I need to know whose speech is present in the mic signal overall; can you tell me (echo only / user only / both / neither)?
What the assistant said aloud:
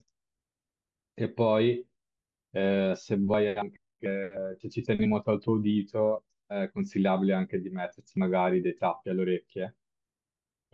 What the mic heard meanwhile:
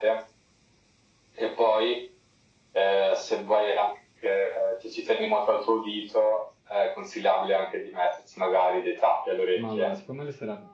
both